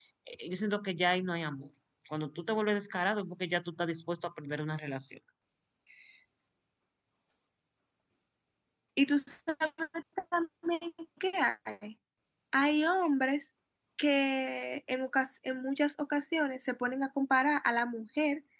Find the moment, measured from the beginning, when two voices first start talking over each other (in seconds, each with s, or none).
none